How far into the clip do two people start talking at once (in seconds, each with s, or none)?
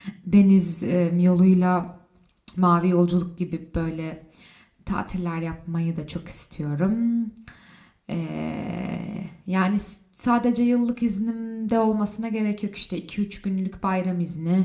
none